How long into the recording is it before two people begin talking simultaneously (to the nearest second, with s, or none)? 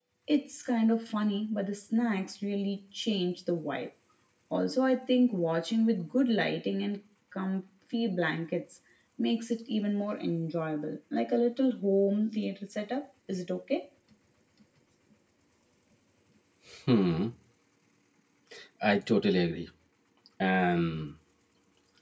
none